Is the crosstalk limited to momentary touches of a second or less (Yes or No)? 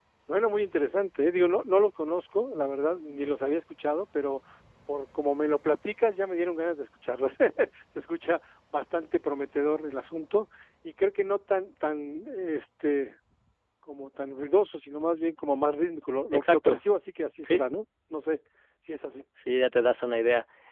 Yes